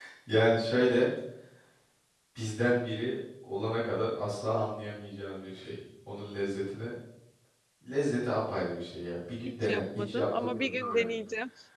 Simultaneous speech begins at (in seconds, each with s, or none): 9.6 s